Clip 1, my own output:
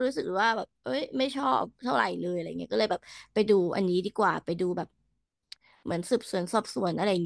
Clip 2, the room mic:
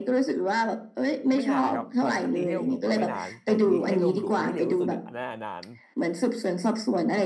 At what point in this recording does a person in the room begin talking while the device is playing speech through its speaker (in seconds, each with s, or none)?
1.3 s